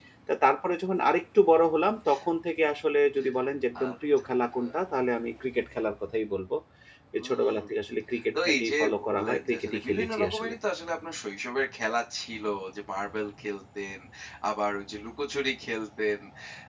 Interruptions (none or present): present